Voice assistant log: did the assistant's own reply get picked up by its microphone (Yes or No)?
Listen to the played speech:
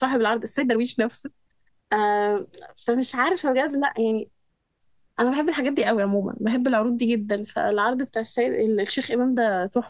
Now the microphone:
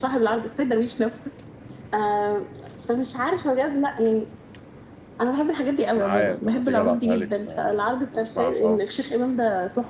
Yes